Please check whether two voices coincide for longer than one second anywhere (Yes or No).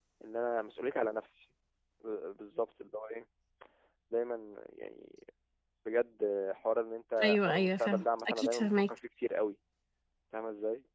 Yes